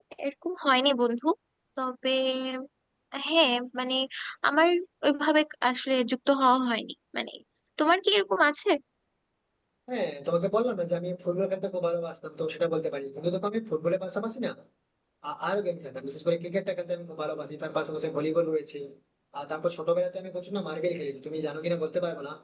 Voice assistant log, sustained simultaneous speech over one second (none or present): none